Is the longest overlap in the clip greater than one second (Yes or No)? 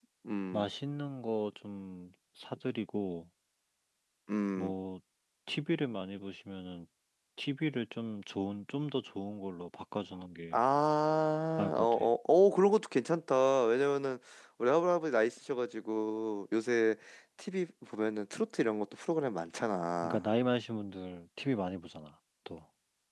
No